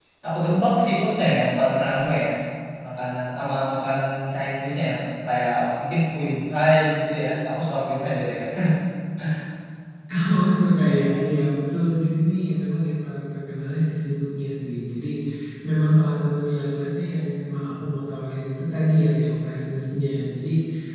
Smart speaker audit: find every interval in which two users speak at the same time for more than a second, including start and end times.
none

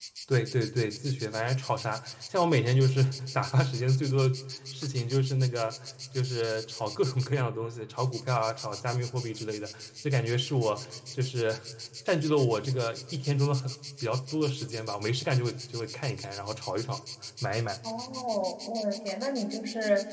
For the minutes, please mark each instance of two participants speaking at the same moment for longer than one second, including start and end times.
none

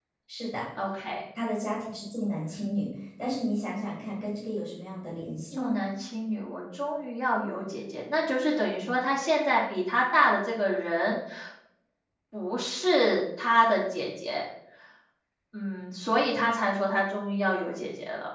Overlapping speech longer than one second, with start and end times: none

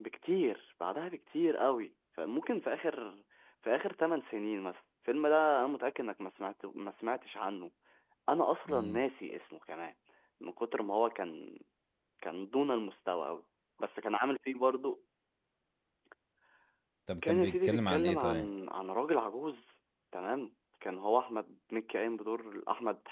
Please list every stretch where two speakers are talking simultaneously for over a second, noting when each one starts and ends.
17.3-18.5

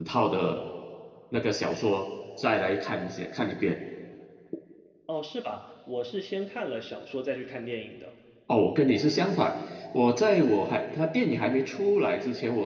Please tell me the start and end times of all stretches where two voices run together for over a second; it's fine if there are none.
none

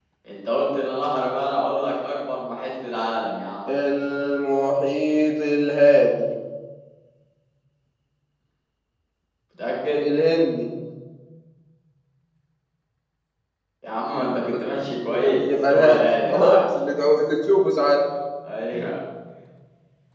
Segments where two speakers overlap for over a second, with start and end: 15.1-16.6

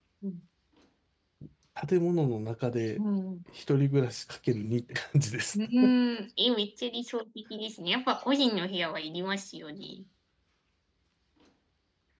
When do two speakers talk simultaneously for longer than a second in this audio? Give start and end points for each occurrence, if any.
none

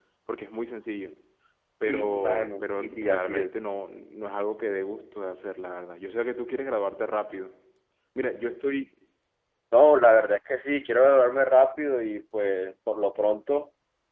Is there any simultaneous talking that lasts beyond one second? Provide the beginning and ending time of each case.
1.9-3.5

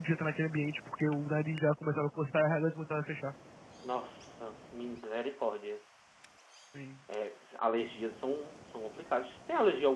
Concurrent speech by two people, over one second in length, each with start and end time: none

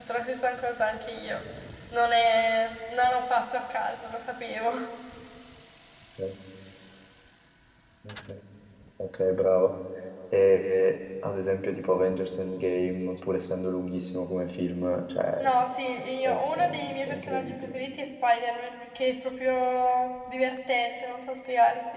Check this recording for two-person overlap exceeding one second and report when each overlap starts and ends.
16.2-17.8

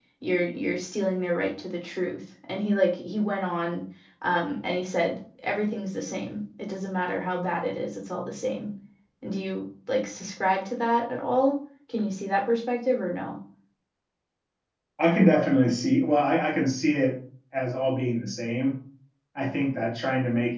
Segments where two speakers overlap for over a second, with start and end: none

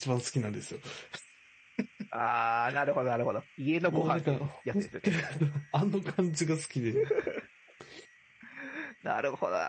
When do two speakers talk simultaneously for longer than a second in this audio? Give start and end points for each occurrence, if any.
3.8-5.2

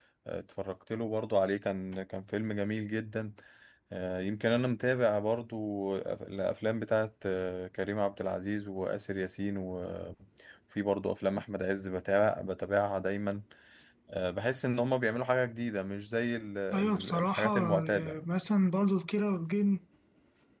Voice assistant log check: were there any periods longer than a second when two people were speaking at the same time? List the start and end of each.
16.7-18.2

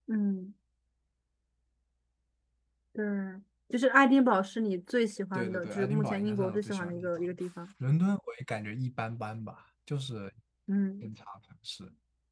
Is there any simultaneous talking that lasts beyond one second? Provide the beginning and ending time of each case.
5.3-7.1

